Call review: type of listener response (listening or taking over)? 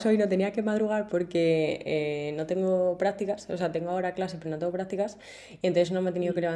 listening